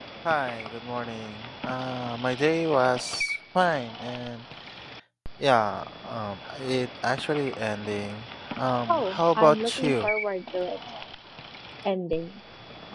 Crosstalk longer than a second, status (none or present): present